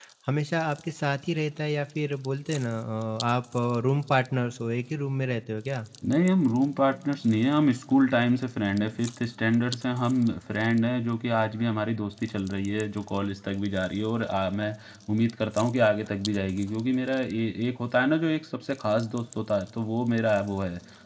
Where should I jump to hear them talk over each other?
none

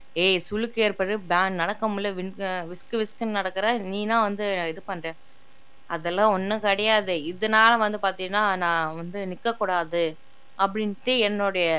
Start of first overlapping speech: none

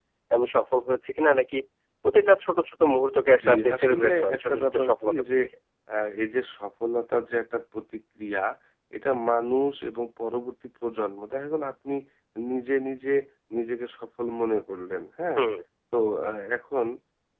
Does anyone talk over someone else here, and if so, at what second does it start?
3 s

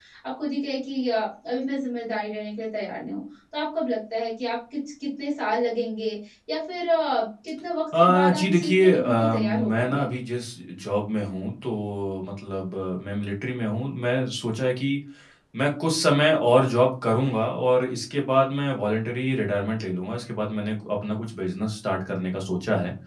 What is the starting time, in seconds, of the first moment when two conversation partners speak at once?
8 s

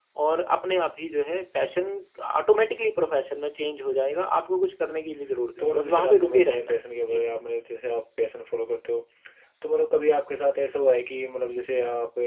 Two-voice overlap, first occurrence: 6 s

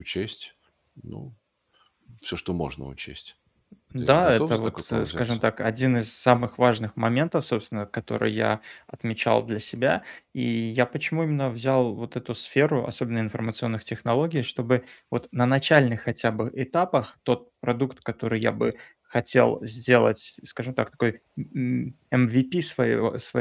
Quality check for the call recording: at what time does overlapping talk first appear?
4 s

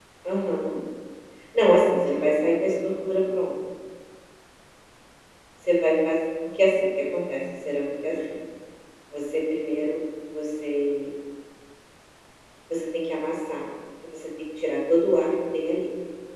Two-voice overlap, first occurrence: 2 s

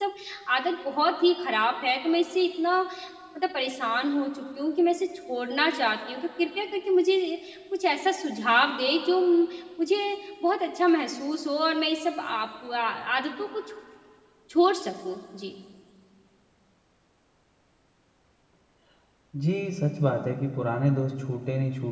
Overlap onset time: none

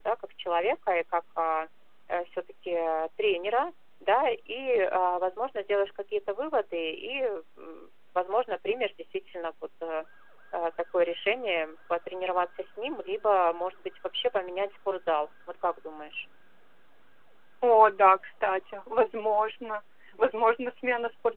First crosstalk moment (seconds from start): none

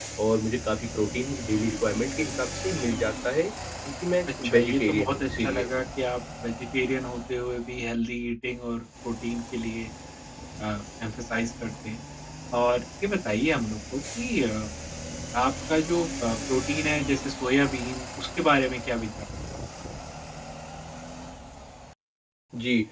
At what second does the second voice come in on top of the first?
4 s

